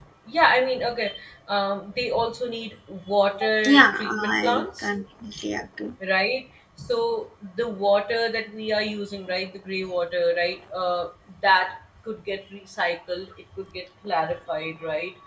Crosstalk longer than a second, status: present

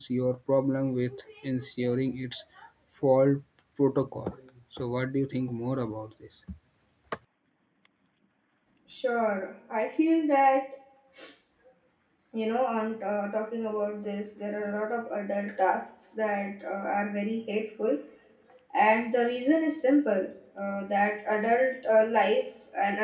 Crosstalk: none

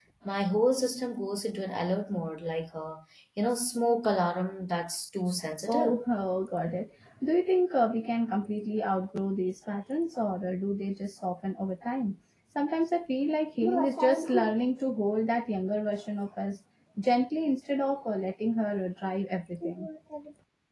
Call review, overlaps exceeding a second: none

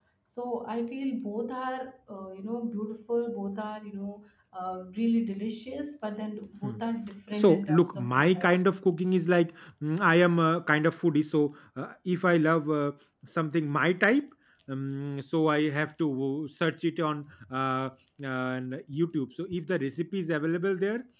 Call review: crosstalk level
present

